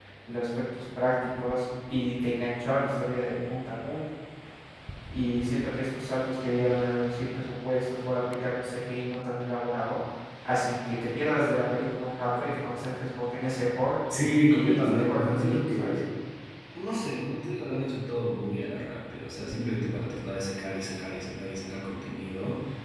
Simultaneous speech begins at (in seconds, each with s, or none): 14.5 s